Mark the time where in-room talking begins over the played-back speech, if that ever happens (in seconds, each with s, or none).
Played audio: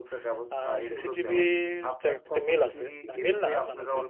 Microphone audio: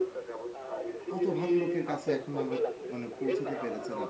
1.1 s